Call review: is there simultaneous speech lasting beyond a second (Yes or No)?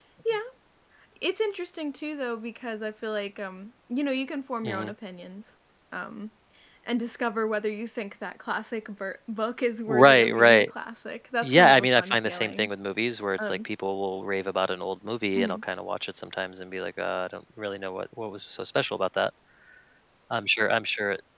Yes